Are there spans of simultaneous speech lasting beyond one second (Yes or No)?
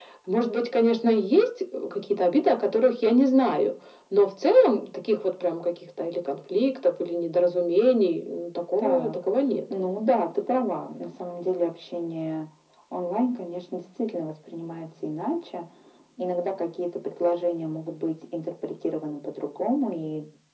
No